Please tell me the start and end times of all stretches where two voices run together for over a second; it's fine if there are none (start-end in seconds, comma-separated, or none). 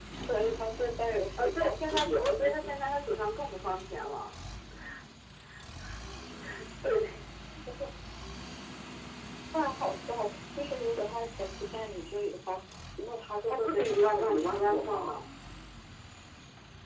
1.4-2.8, 13.5-15.2